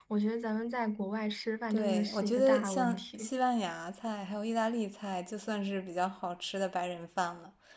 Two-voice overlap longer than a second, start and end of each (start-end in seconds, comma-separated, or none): 1.7-3.3